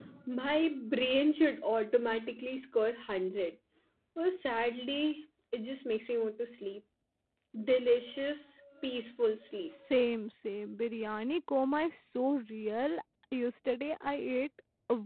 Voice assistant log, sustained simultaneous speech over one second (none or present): none